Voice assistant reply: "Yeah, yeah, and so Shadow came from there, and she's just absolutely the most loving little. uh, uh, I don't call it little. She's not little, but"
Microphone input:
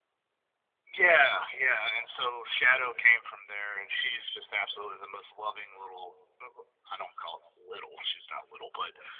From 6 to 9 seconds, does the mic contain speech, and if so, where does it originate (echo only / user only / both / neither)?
echo only